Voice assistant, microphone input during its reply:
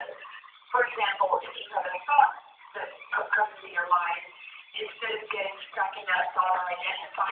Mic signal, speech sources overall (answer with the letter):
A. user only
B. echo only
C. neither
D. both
B